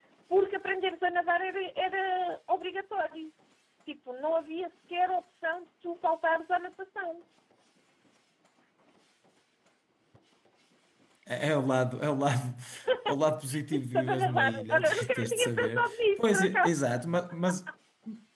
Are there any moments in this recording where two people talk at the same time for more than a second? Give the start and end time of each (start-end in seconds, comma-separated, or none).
13.8-16.8